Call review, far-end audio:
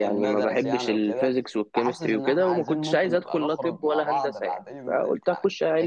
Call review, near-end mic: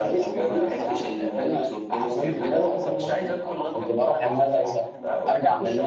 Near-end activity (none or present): present